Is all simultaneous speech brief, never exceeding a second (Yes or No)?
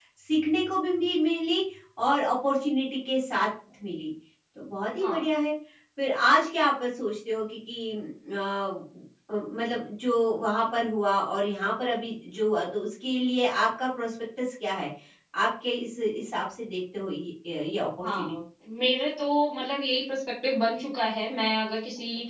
Yes